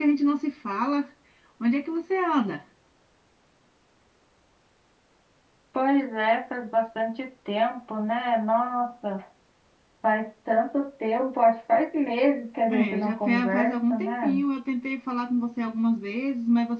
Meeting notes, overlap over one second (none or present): present